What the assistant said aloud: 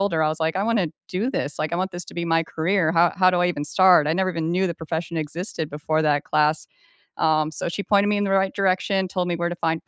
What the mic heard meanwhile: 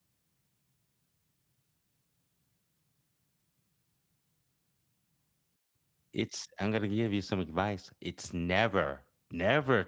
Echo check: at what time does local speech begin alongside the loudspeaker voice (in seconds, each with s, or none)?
6.1 s